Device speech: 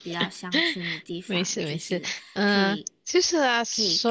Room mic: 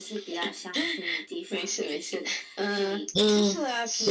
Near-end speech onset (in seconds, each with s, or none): 3.1 s